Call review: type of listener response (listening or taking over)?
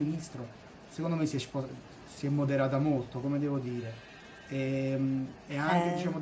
listening